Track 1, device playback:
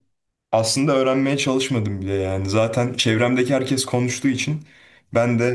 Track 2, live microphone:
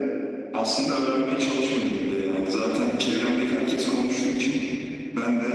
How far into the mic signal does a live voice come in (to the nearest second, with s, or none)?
none